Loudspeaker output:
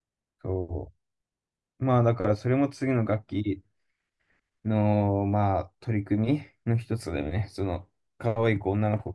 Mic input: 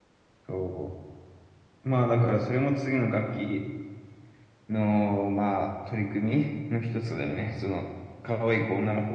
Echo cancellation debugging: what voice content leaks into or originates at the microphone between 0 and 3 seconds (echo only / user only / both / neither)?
echo only